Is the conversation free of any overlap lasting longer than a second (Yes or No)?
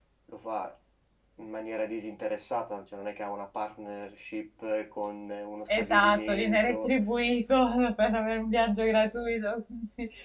No